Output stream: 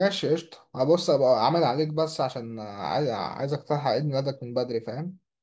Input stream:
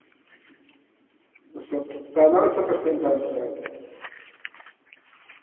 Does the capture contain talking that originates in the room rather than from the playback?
Yes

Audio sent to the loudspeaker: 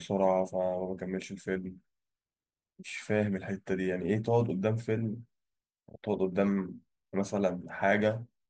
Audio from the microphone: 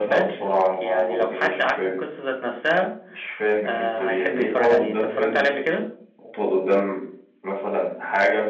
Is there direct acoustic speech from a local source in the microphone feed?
Yes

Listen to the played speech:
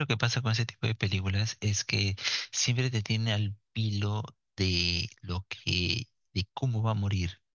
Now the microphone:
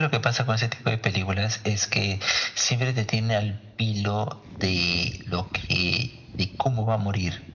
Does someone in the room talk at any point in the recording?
No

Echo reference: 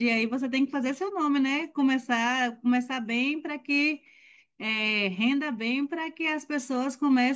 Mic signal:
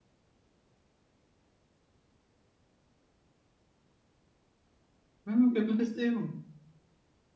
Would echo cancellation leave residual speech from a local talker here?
Yes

